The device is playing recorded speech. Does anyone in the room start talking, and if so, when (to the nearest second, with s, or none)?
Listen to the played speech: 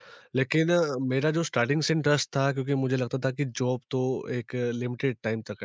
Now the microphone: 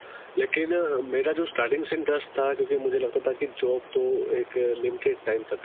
none